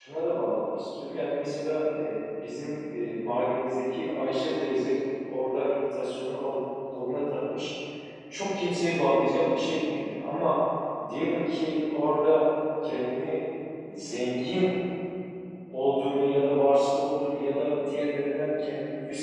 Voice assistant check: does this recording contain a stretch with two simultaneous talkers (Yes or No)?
No